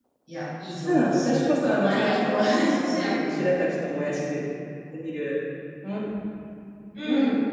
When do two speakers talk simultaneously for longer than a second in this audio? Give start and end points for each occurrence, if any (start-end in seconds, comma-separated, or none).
0.8-3.5